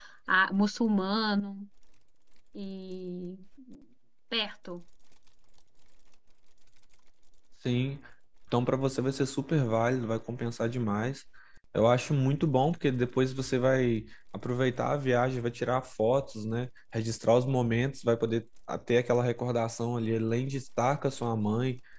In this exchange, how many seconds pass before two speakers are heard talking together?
none

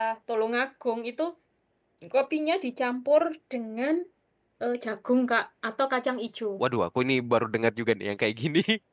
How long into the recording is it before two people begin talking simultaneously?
none

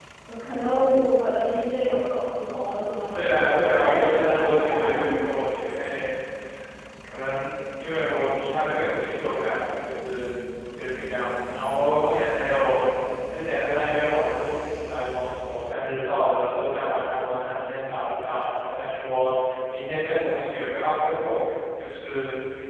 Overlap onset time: 3.1 s

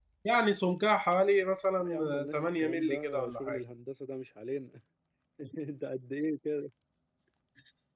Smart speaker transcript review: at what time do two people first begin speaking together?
1.8 s

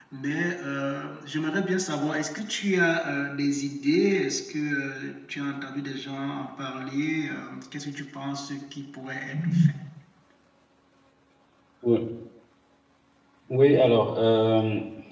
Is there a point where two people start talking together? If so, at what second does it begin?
none

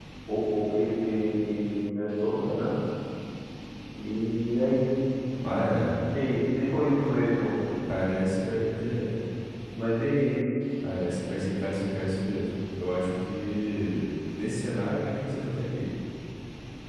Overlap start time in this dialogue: none

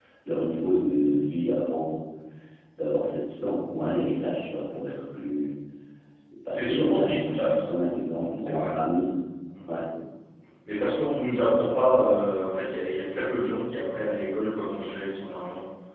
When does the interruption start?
6.4 s

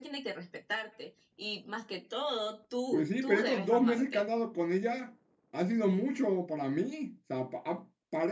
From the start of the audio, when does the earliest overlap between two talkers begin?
2.9 s

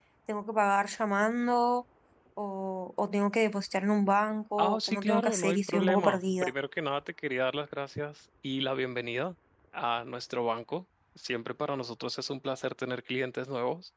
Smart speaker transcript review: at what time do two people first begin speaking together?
4.6 s

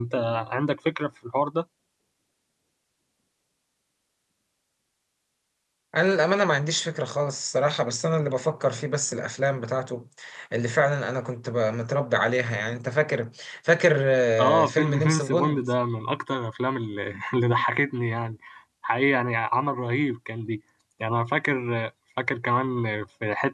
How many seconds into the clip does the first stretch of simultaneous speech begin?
14.4 s

